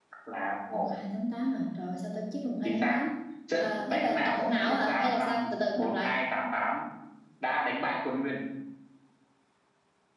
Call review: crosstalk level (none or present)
present